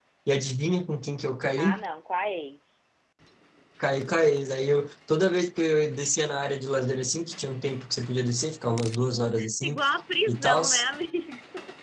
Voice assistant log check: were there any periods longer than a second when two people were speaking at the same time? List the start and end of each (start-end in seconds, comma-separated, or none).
none